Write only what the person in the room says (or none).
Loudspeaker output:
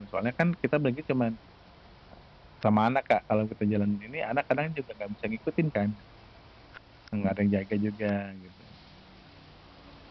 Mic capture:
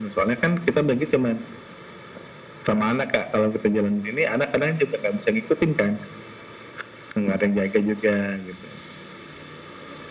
none